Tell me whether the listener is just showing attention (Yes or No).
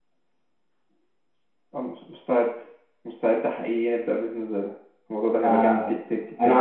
No